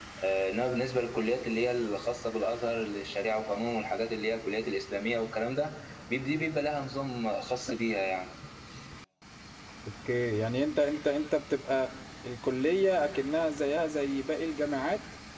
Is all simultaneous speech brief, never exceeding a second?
Yes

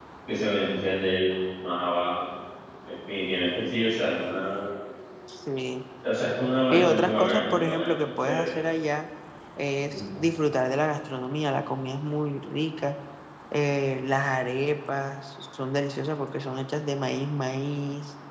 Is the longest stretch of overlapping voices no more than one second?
No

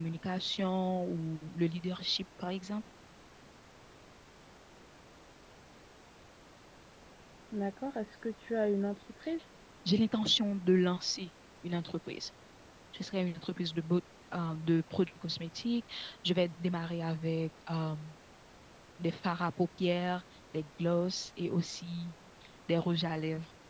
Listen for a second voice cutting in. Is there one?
No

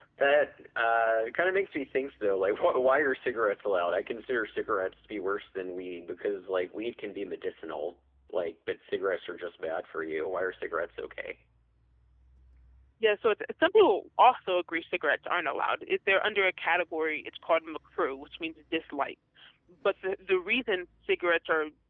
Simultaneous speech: No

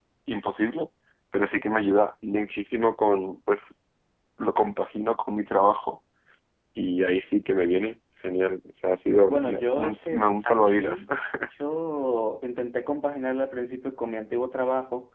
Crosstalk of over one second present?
Yes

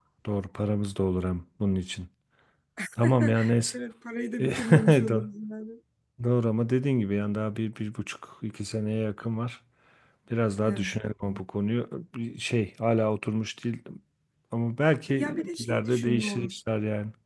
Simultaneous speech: Yes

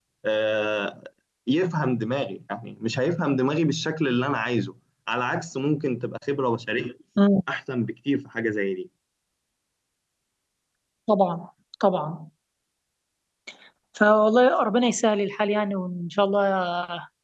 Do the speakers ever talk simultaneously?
No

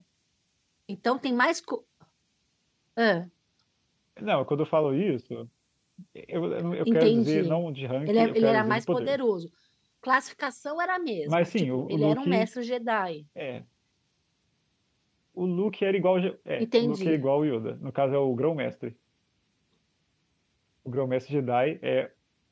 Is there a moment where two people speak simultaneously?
Yes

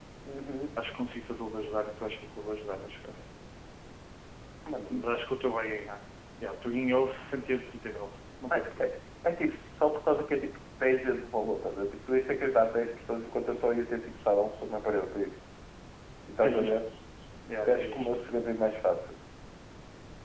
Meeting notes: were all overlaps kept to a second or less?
Yes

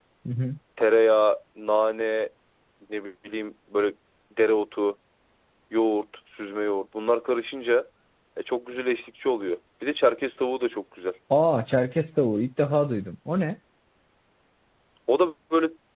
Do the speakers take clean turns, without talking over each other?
Yes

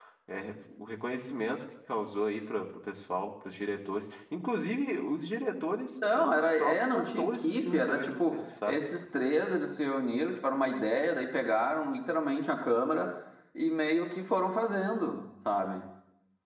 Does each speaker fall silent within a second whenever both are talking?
No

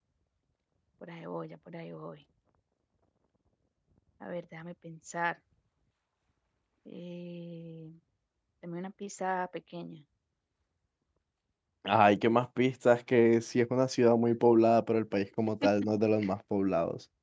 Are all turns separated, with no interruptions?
Yes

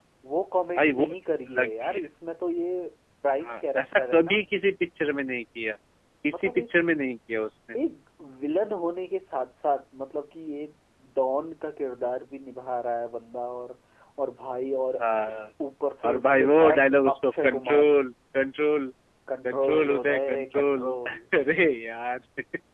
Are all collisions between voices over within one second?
No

